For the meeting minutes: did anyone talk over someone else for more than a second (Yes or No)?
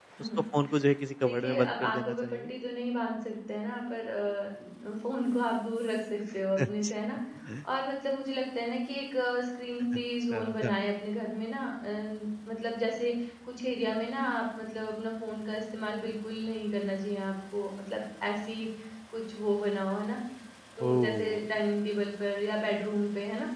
Yes